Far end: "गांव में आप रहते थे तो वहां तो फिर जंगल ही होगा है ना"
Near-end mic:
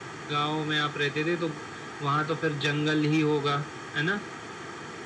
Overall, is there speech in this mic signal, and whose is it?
echo only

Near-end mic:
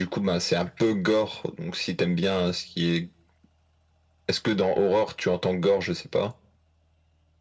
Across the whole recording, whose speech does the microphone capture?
echo only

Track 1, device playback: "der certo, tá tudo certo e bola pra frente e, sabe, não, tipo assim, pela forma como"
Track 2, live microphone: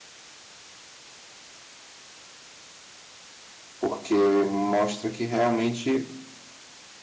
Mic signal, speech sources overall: user only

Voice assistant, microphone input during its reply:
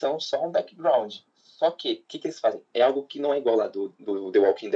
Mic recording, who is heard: echo only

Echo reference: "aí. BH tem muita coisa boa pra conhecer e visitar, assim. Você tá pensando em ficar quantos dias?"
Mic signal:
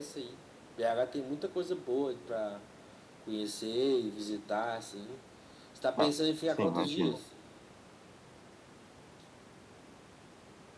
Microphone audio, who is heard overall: both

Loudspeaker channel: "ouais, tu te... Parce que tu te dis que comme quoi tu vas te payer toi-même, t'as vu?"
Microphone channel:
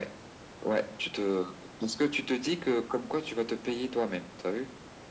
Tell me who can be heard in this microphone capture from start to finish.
echo only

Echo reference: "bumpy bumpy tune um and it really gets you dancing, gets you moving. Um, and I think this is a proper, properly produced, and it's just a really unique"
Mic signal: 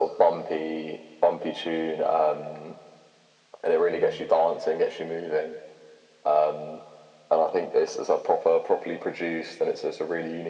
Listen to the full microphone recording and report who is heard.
both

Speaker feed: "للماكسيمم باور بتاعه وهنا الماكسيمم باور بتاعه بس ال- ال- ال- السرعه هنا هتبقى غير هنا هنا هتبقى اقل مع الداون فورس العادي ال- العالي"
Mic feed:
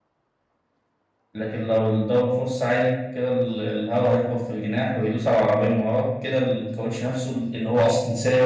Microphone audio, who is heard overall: user only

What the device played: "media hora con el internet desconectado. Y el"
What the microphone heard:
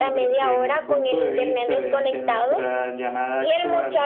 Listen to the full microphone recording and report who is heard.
both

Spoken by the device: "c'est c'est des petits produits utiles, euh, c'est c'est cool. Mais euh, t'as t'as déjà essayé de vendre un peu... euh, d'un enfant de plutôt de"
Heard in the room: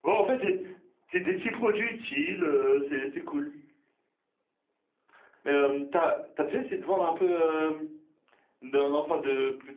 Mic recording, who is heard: echo only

